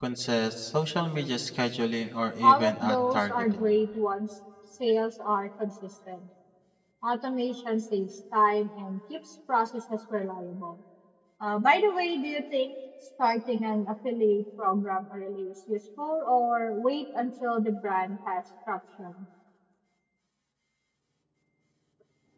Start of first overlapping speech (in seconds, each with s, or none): 2.4 s